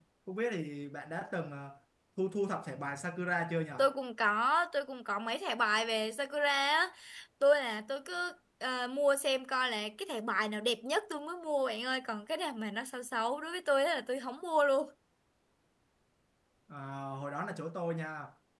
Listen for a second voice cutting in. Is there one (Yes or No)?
No